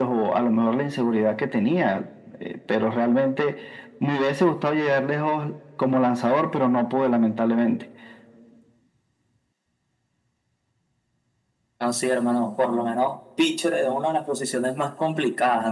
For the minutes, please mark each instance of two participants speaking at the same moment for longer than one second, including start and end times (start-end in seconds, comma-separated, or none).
none